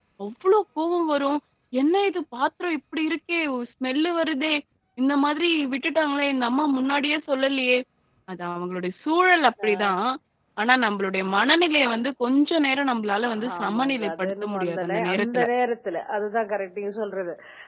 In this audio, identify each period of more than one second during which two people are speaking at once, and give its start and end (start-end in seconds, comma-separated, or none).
13.6-15.4